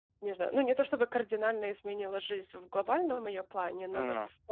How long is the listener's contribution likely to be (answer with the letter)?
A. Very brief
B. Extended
A